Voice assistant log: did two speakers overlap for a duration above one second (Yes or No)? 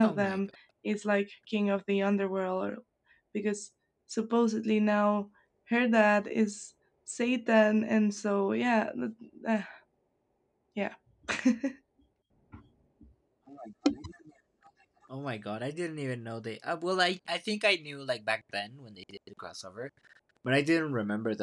No